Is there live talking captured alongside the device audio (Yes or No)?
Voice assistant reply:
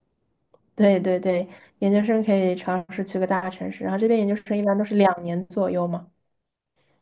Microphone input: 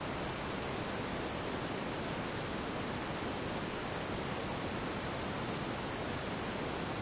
No